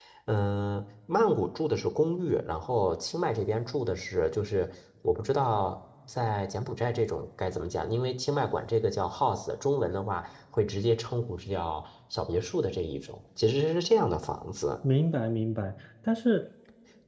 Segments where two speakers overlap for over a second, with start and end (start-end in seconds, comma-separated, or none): none